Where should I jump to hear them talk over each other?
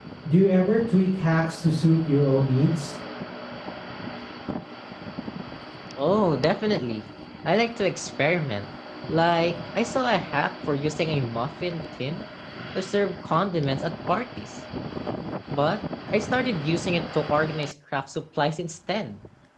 none

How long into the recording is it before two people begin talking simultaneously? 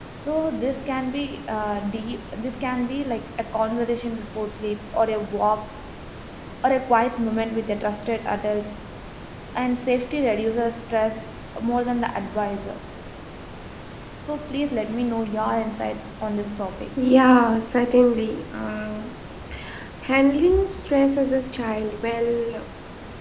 none

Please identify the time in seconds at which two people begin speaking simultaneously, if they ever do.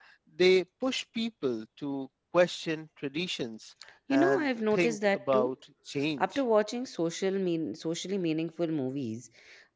4 s

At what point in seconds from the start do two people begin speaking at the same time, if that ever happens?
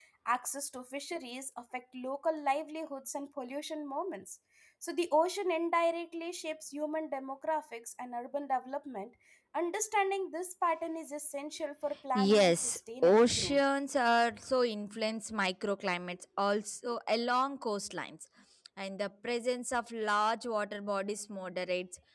12 s

